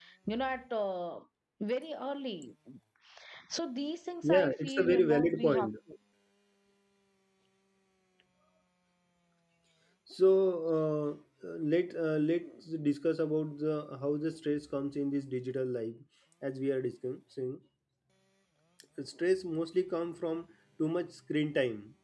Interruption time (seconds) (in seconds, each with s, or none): 4.2 s